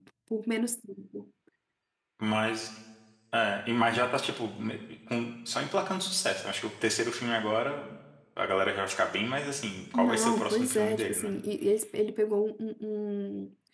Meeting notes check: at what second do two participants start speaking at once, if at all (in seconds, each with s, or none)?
9.9 s